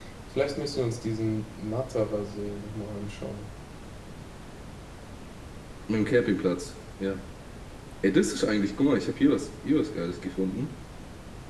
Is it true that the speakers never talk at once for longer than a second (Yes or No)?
Yes